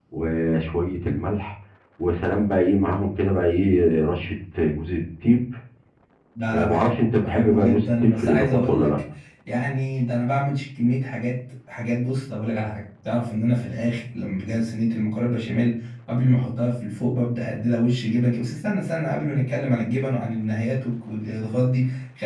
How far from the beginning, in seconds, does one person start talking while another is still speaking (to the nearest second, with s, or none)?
7 s